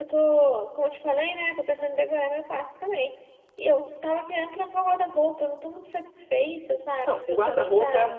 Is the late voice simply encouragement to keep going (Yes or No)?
No